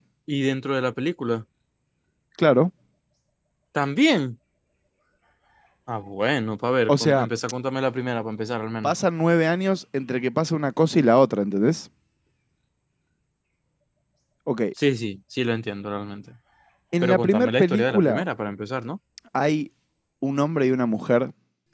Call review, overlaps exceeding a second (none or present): present